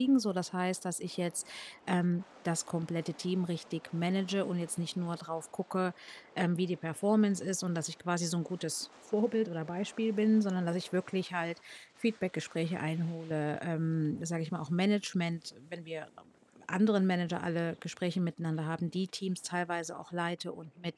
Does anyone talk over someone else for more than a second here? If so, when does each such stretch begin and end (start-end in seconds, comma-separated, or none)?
none